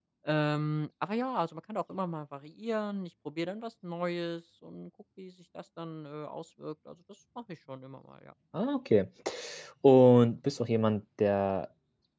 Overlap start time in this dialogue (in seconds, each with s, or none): none